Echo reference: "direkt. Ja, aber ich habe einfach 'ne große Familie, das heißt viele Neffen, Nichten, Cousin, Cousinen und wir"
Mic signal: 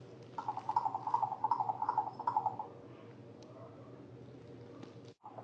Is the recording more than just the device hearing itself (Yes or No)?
No